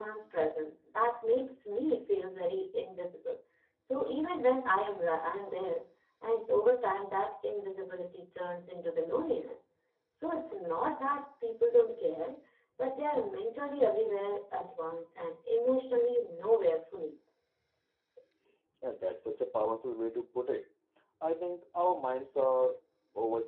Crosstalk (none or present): none